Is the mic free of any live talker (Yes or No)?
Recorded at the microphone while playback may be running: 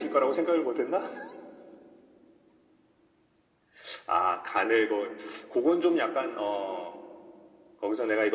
Yes